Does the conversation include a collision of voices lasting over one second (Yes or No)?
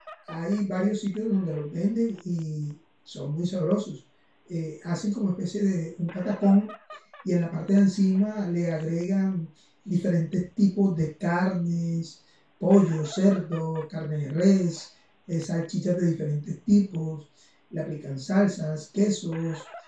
No